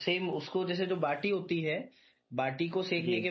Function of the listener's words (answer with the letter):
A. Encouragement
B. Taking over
A